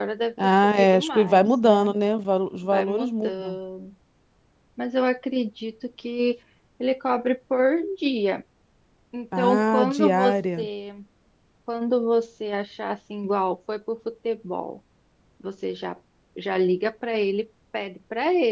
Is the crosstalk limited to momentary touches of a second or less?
No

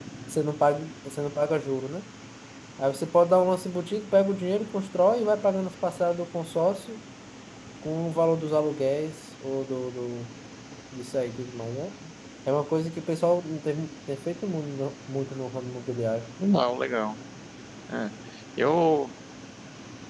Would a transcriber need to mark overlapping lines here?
No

